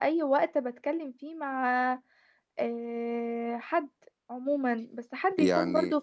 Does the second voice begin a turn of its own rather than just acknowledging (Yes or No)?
No